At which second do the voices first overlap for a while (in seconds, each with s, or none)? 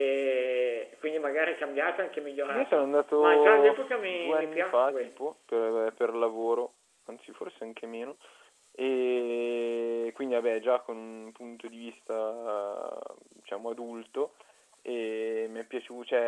2.5 s